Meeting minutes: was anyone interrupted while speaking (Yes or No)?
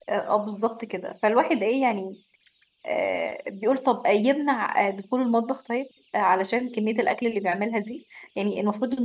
No